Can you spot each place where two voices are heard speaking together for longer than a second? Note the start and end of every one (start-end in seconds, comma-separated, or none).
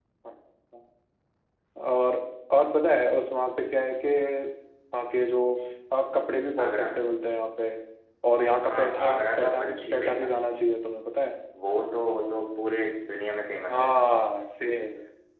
8.7-10.3